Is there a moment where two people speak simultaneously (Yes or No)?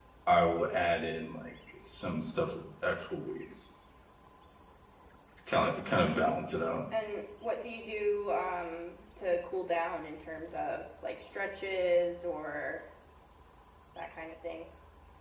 No